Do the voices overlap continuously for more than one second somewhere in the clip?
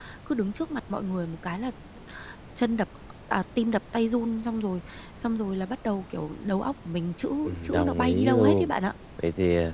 Yes, from 7.5 s

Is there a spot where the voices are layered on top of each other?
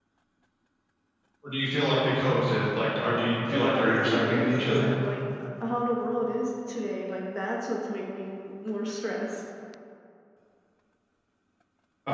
Yes, from 3.5 s

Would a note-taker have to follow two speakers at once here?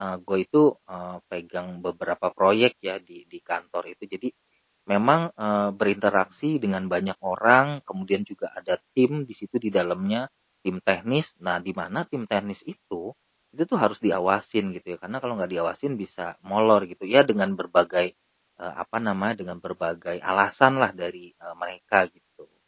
No

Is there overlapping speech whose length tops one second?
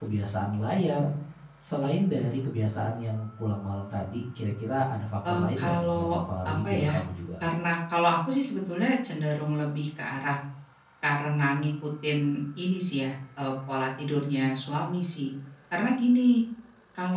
Yes, from 5.2 s

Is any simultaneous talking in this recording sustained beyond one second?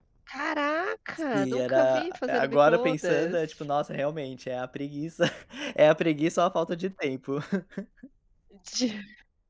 Yes, from 1.3 s

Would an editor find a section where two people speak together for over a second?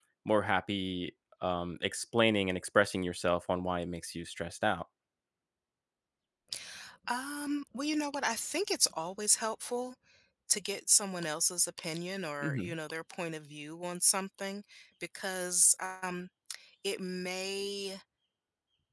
No

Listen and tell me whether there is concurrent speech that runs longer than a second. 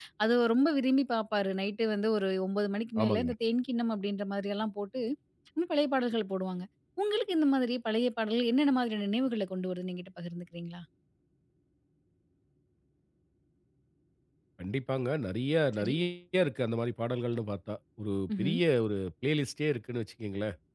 No

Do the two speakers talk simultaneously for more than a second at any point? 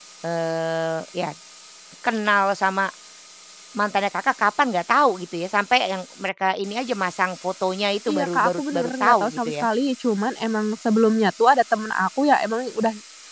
Yes, from 8.1 s

